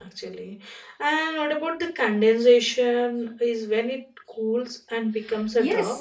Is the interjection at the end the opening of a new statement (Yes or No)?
Yes